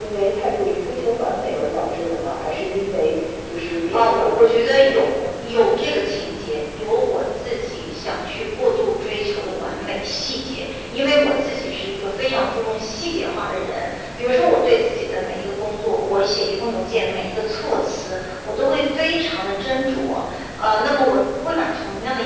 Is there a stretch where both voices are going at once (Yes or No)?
Yes